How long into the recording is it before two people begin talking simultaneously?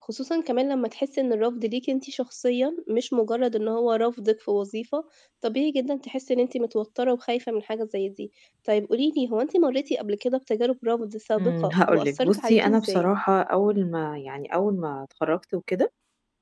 11.4 s

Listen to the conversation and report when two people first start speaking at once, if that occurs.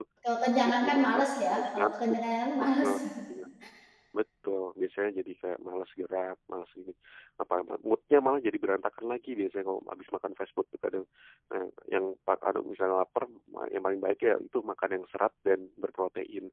0.6 s

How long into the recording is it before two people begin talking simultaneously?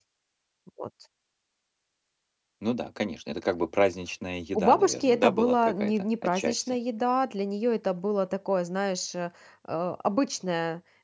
4.5 s

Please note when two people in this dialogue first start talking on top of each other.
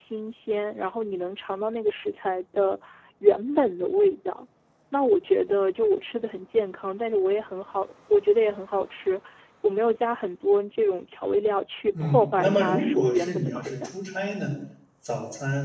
11.9 s

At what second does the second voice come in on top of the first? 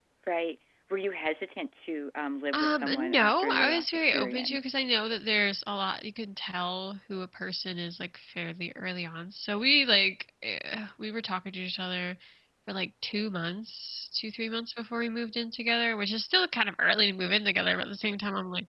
2.5 s

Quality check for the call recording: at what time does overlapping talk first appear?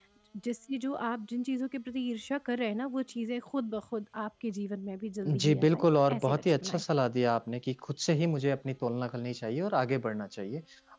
5.2 s

